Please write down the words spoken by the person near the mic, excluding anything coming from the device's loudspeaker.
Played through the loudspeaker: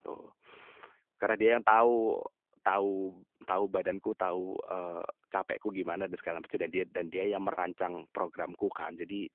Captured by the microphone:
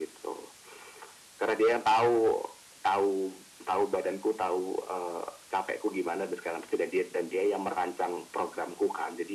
none

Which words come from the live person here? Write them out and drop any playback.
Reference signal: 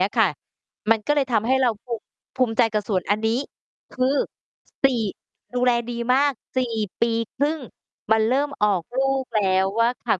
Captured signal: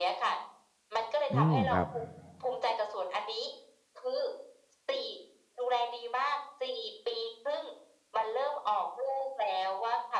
อืม ครับ

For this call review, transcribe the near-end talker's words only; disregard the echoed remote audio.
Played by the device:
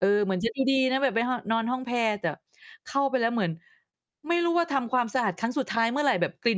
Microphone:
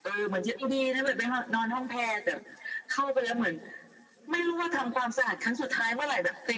none

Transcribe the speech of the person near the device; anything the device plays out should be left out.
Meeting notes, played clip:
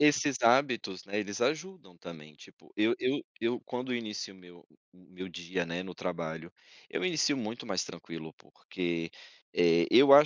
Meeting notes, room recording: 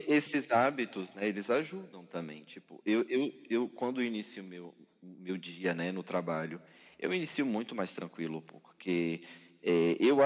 none

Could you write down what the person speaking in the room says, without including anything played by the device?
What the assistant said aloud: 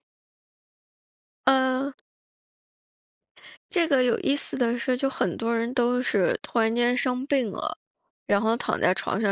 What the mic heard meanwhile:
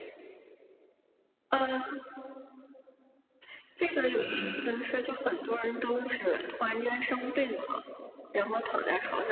嗯。

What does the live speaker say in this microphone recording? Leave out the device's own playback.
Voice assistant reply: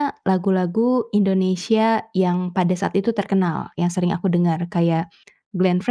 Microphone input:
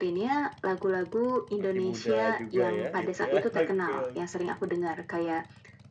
Masih muda juga ya, gitu ya. Oke, oke.

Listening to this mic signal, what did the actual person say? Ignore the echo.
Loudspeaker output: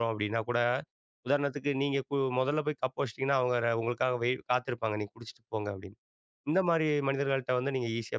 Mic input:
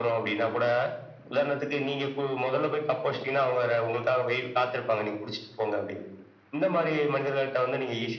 none

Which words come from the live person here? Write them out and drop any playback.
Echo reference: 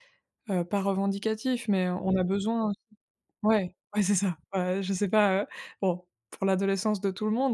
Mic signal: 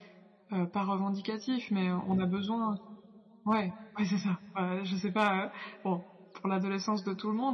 none

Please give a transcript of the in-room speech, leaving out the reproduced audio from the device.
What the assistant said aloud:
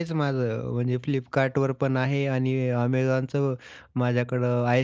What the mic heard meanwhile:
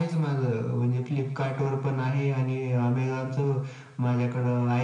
none

